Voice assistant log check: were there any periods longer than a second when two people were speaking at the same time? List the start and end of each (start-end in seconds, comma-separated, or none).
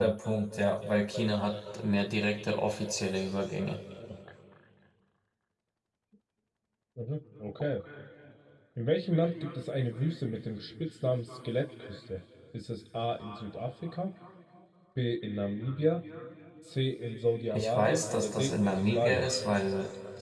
17.5-19.3